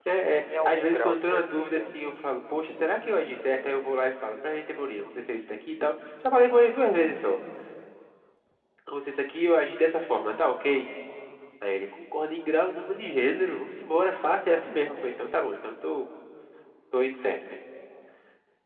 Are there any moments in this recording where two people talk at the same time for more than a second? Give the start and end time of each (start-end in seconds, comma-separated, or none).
0.6-2.0